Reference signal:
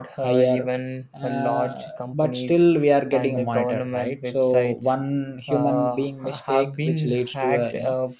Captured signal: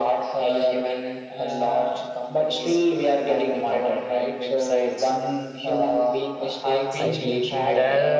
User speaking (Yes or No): Yes